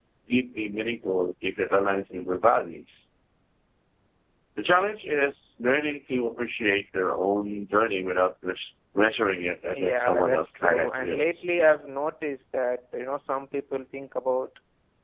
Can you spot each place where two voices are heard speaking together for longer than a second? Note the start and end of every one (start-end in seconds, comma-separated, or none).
9.8-11.5